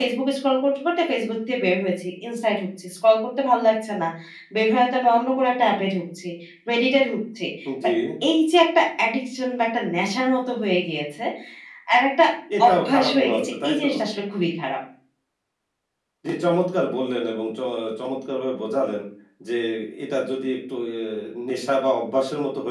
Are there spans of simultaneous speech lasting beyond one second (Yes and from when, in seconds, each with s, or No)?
Yes, from 12.7 s